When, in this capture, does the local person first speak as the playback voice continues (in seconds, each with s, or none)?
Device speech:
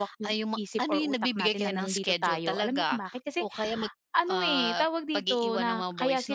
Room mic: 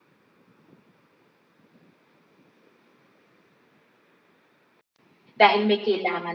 5.4 s